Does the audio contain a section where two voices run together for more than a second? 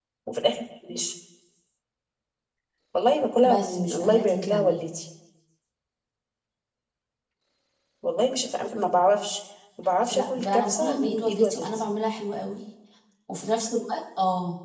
Yes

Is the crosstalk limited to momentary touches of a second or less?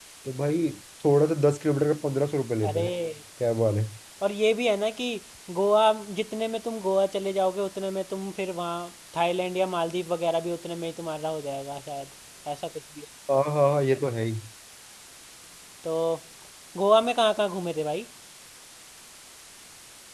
Yes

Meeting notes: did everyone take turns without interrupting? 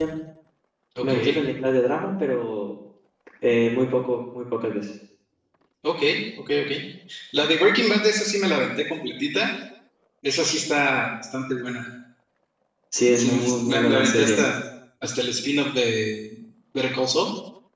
No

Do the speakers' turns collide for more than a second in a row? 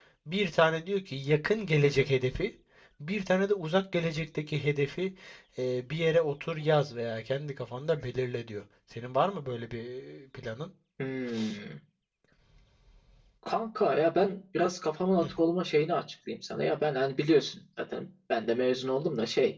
No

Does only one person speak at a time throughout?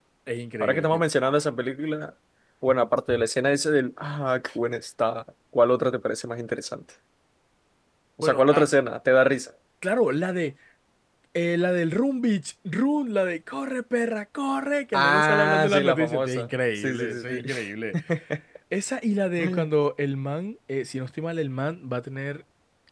No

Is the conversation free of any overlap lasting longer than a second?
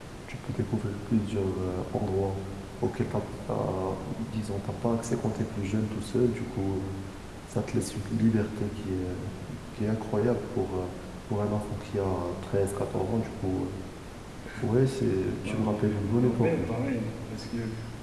No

